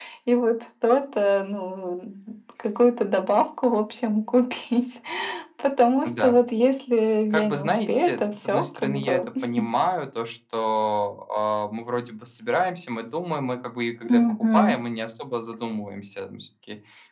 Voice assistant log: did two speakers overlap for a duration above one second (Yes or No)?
Yes